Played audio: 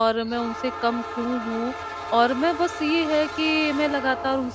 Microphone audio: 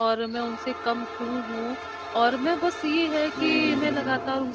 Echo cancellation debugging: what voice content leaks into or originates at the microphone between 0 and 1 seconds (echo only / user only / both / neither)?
echo only